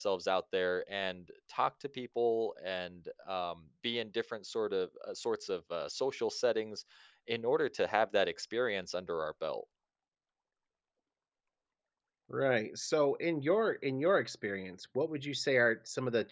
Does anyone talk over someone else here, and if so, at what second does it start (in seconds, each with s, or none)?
none